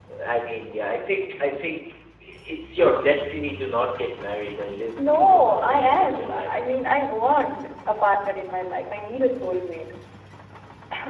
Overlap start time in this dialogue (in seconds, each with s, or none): 5.0 s